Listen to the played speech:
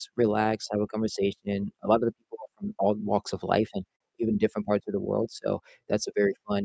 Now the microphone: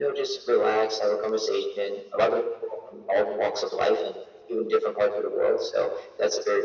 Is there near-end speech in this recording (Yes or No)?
No